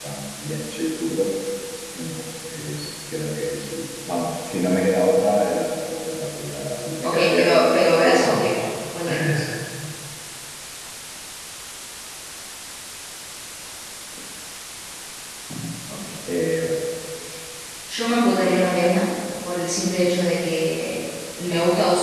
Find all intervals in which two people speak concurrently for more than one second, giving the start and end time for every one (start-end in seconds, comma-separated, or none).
7.0-8.2